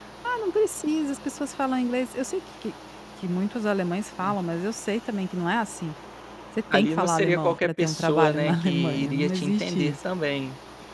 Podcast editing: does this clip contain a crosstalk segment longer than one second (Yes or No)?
Yes